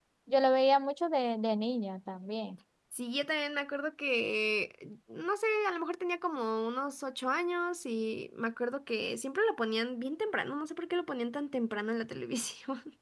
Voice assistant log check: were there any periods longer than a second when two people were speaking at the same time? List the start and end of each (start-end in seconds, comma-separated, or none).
none